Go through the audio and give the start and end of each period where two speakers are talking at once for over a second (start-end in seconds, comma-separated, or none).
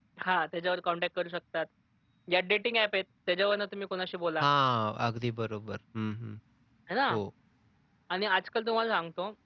none